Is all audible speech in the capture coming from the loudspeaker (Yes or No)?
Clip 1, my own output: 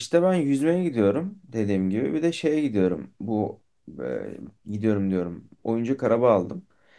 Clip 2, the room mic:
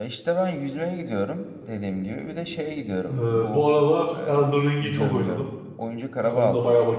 No